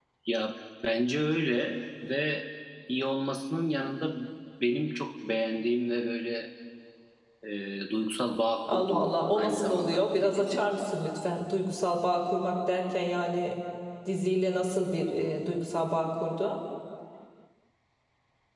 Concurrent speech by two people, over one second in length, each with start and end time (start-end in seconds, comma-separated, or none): 8.7-10.6